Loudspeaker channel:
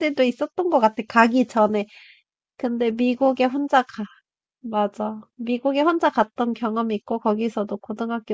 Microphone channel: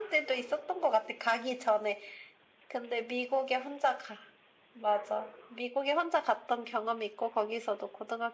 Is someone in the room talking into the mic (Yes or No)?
No